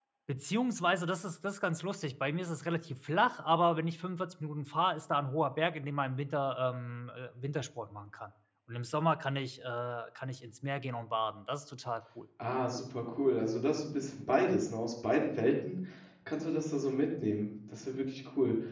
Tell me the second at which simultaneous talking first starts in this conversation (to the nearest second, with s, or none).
none